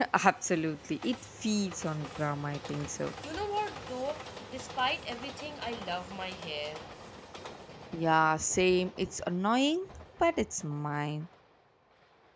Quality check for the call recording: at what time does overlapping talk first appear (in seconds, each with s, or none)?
none